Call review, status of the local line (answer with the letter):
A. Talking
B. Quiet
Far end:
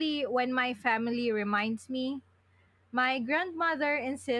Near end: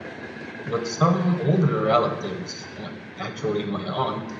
A